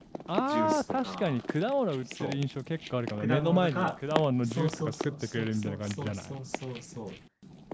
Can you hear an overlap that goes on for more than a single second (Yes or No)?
Yes